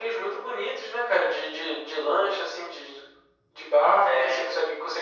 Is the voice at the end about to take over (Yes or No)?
No